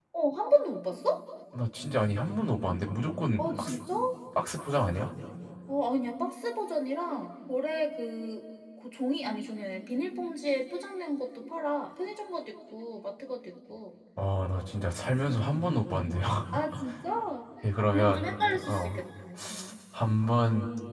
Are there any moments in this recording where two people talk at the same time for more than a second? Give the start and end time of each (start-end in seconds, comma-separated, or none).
17.8-19.0